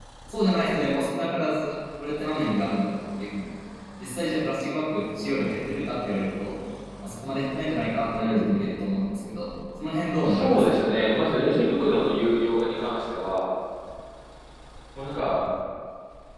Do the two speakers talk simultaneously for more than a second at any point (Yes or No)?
No